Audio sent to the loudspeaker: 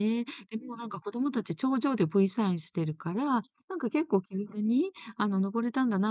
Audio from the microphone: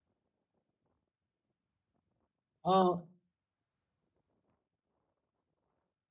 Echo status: none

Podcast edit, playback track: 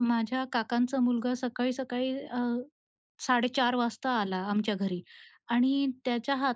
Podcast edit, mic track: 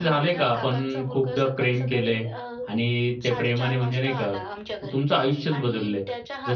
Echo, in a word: present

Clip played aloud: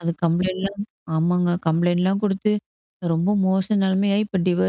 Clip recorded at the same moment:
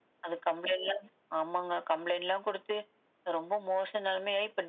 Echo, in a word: present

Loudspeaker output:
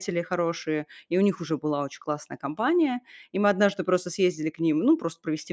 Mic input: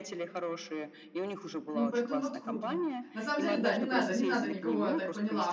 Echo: present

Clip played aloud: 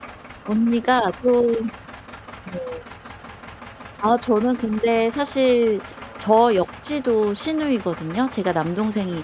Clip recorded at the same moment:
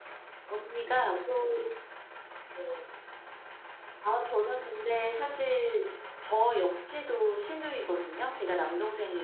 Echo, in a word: present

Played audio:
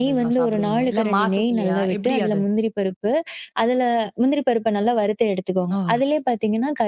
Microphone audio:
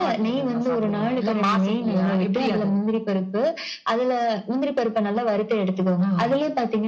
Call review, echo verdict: present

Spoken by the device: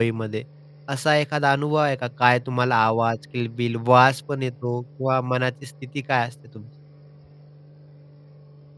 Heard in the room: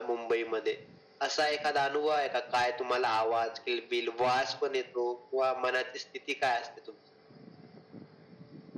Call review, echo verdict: present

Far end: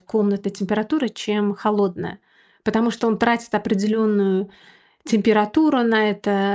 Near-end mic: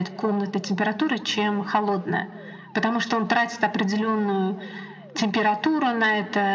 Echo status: present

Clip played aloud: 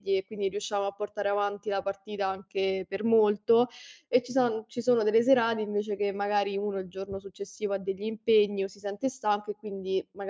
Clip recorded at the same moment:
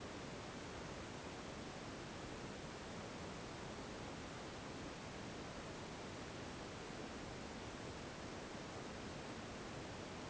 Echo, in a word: none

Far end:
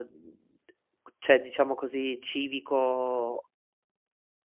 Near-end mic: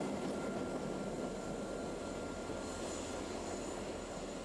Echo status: none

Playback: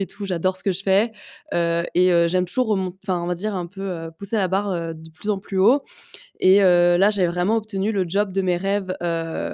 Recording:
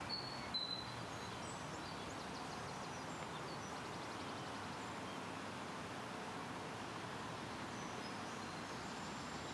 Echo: none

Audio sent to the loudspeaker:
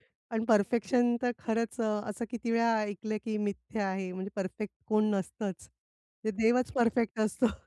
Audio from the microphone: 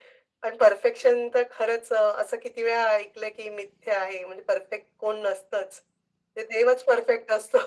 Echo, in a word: present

